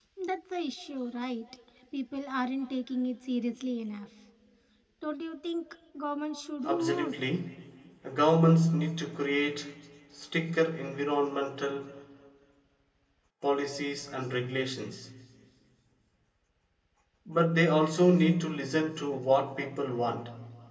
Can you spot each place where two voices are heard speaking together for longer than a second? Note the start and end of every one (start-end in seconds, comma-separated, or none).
none